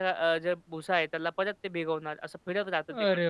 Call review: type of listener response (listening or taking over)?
taking over